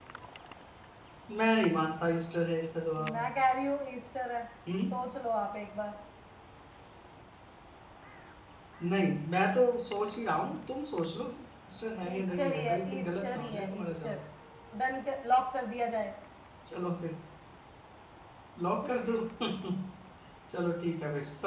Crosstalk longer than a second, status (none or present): present